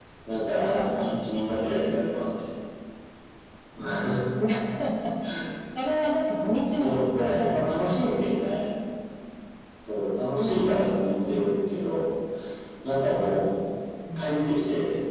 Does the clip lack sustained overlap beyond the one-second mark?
No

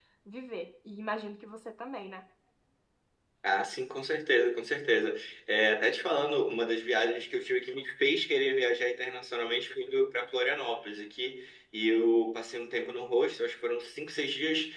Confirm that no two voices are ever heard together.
Yes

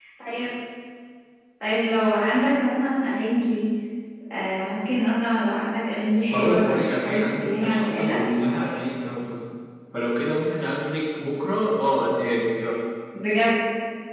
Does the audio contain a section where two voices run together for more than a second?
Yes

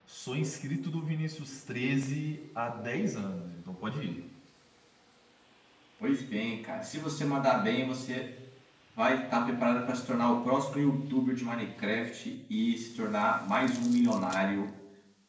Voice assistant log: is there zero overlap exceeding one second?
Yes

